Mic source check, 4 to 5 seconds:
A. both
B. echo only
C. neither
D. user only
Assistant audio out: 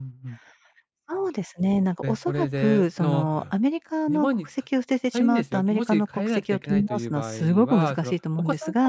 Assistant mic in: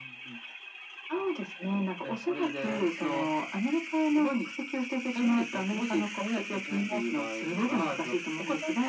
B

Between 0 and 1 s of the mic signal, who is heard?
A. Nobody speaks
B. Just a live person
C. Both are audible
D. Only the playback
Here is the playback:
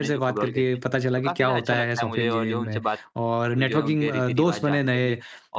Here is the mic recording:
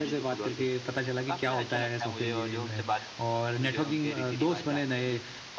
D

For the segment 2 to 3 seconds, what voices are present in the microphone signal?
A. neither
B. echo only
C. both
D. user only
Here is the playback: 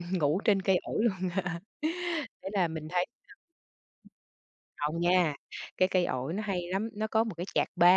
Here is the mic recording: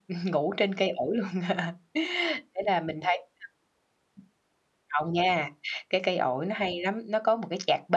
B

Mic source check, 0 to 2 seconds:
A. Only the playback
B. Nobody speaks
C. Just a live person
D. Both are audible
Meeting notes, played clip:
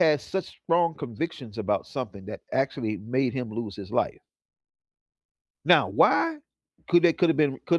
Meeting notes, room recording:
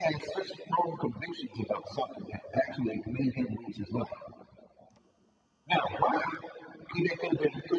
A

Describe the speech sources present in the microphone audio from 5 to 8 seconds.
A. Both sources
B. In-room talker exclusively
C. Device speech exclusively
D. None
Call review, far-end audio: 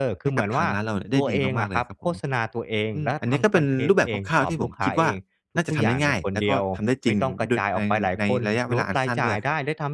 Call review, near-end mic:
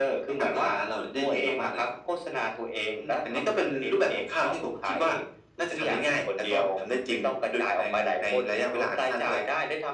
C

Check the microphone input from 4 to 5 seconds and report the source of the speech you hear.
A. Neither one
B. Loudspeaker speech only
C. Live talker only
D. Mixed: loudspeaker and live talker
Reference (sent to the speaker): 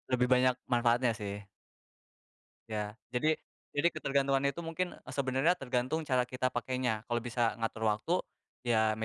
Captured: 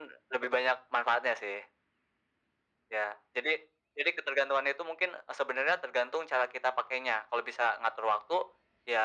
B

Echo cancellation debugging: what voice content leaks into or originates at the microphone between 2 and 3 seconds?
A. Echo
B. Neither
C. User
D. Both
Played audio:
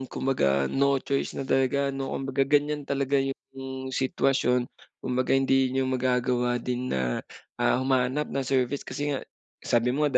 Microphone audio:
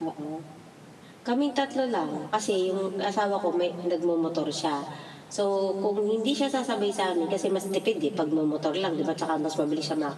C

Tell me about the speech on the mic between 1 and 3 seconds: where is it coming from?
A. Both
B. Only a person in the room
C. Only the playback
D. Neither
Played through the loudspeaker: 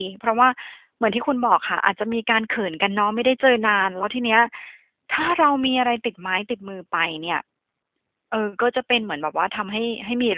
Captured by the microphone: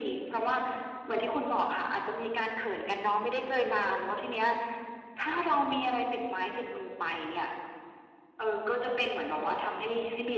C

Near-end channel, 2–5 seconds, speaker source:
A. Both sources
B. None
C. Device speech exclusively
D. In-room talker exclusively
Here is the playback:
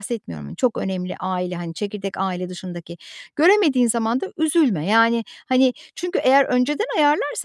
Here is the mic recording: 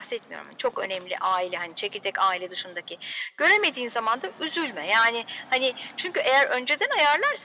C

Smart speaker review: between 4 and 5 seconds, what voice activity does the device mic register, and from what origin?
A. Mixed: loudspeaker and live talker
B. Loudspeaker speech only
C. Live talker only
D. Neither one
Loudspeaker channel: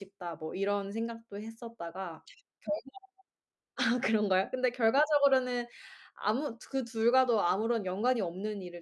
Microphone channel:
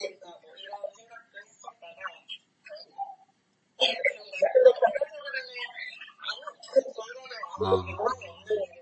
B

